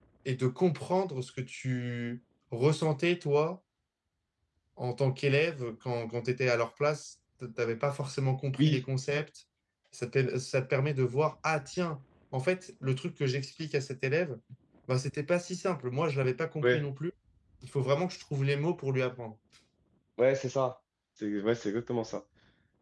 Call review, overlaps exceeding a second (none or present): none